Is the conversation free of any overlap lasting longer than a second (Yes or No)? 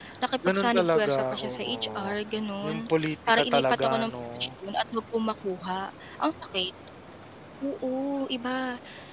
No